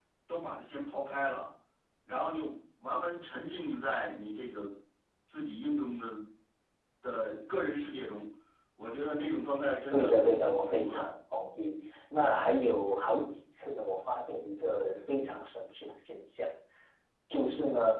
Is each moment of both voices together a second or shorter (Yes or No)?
No